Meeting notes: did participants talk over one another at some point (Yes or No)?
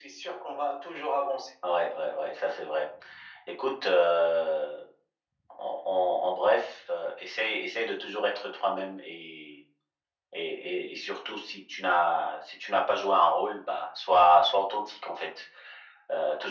No